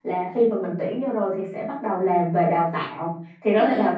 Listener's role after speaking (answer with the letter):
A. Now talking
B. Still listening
B